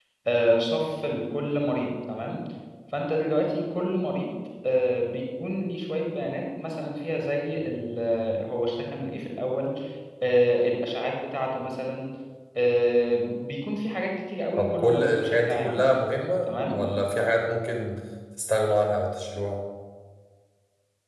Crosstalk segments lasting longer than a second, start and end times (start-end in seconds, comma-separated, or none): 14.6-15.9